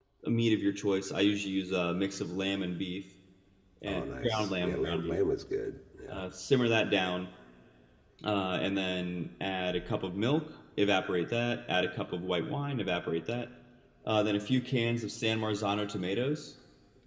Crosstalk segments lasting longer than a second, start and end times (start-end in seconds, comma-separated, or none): 3.9-5.2